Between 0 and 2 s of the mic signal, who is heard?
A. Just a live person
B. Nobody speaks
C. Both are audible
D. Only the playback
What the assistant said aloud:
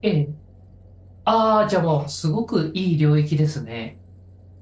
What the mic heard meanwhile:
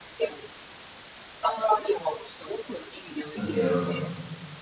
D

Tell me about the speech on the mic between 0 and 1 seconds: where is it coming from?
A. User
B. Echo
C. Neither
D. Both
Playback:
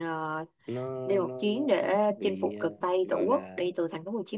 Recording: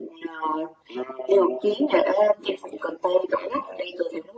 B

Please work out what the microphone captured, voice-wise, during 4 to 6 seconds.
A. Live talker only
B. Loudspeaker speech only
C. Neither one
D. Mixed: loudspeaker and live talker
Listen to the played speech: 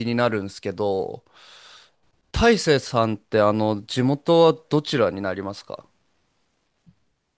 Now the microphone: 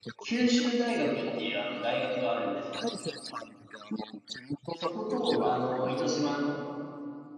D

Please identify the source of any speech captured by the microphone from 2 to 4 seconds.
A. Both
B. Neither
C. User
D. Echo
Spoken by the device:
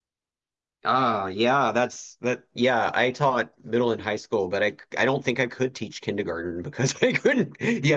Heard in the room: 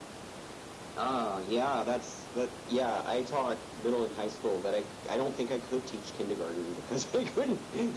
D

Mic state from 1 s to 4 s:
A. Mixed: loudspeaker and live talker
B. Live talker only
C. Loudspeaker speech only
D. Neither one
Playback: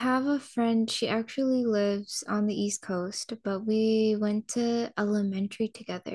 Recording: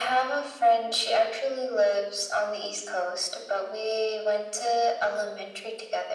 C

